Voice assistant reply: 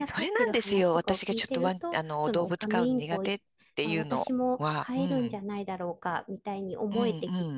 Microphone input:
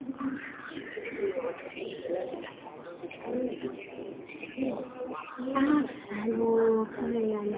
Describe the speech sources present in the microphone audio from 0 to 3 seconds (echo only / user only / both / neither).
echo only